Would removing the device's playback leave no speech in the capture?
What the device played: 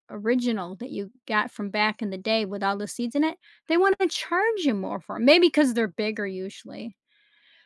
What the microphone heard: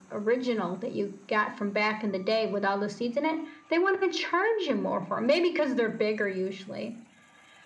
Yes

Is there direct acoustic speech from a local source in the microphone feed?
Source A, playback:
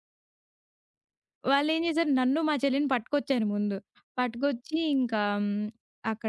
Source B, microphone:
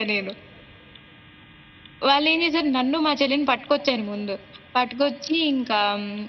No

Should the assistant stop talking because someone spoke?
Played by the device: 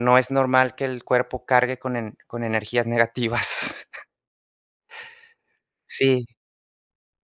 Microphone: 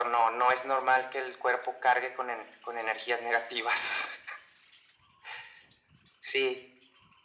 No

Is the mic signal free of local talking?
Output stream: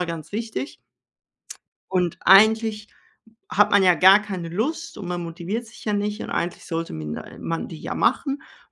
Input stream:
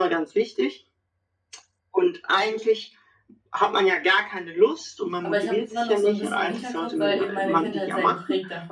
No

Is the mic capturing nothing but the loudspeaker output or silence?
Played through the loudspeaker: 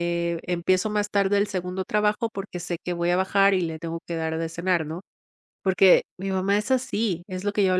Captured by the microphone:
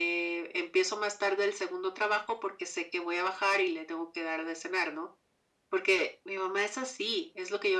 Yes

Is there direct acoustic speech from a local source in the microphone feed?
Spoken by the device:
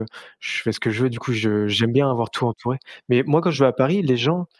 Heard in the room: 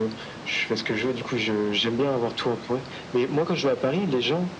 No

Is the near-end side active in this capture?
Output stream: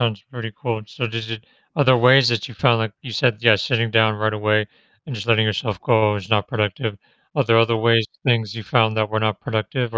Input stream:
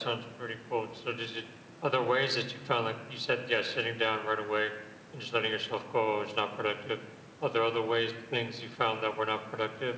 No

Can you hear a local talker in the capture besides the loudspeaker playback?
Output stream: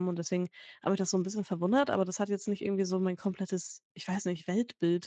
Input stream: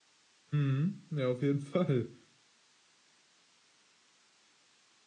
Yes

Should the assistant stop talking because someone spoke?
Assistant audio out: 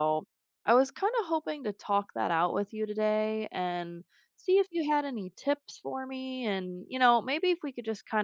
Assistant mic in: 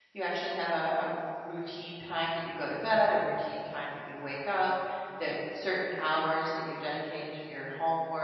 Yes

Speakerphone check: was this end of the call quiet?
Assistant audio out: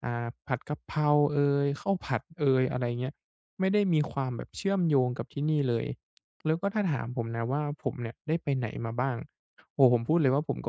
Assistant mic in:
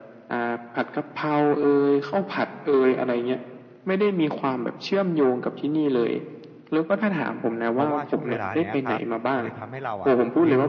No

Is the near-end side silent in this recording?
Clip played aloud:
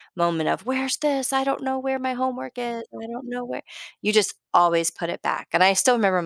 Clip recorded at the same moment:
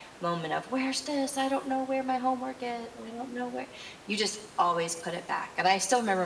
Yes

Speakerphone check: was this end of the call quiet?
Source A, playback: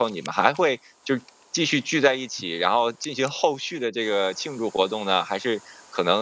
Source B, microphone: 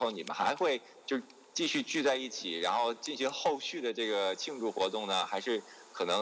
Yes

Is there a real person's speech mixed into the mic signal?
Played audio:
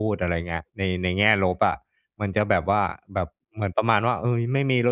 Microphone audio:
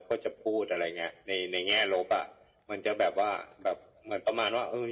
No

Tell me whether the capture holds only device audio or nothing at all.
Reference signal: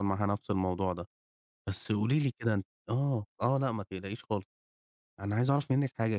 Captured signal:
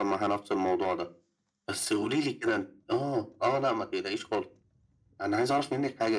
Yes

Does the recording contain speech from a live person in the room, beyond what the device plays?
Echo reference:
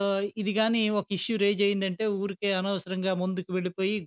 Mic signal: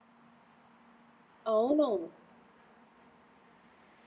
Yes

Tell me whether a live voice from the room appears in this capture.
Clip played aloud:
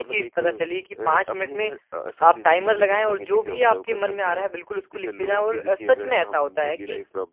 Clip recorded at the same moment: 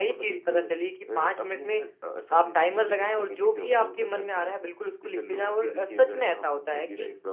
No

